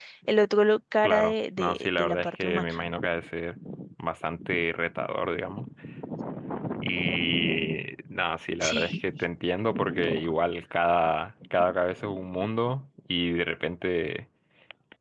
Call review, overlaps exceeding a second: present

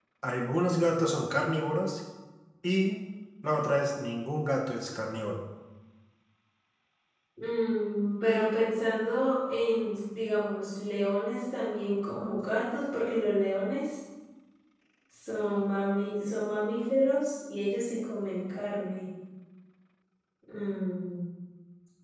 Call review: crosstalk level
none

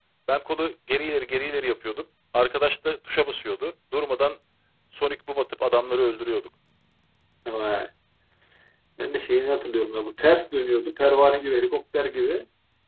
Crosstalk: none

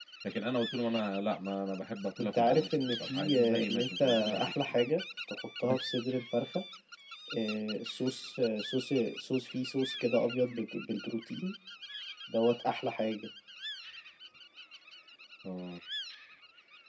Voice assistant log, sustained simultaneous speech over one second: present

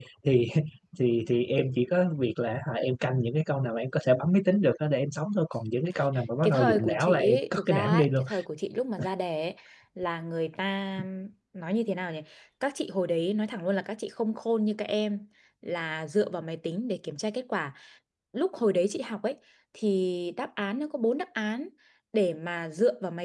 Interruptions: present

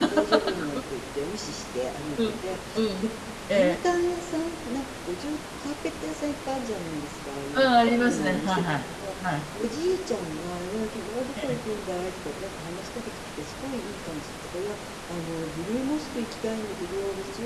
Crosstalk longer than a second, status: present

